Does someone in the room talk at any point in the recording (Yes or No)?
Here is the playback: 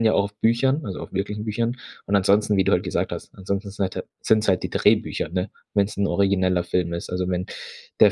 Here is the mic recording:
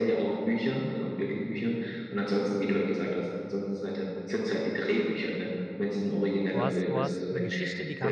Yes